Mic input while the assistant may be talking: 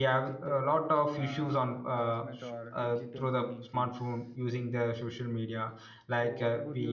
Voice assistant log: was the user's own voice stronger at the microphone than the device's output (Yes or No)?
Yes